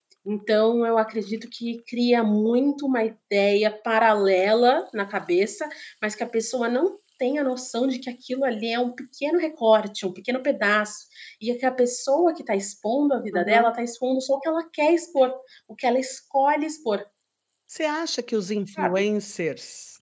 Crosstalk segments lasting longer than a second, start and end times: none

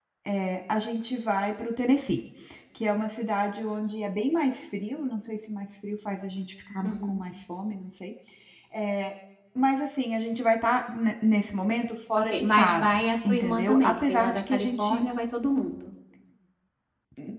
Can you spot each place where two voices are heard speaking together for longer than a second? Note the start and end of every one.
12.2-15.0

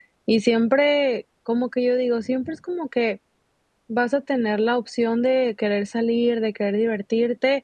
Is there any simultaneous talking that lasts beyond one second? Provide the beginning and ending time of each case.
none

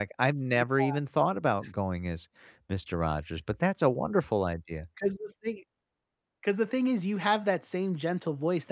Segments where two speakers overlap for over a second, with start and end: none

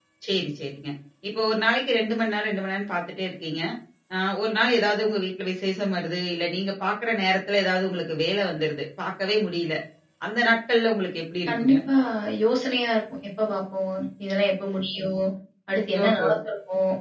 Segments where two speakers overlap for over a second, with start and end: none

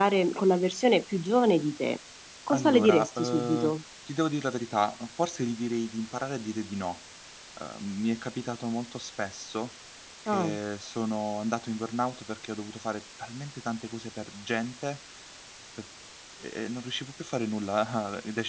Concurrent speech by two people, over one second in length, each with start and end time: 2.5-3.8

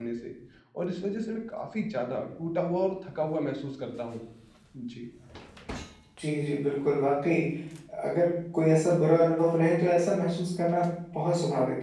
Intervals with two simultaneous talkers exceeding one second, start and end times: none

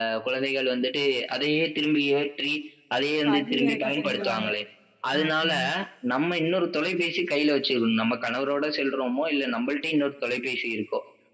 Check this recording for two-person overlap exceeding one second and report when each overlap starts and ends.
3.2-4.5

